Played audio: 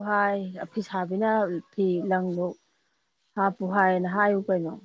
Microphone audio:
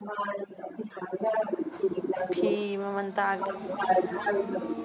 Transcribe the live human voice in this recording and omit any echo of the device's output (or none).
ꯐꯤ ꯃꯃꯜ ꯇꯥꯒꯦ